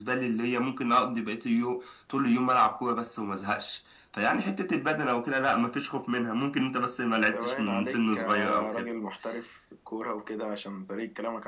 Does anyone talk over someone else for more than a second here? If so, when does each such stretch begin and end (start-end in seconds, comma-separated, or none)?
7.2-8.9